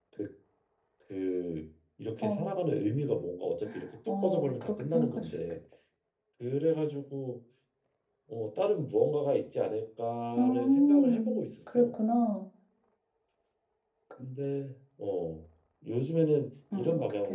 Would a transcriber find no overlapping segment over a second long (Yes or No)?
No